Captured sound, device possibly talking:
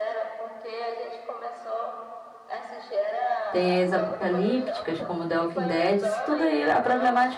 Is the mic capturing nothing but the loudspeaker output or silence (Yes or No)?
No